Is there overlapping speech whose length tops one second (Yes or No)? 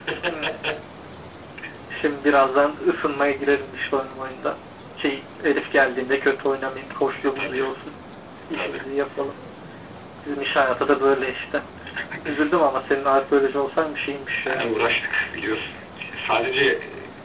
No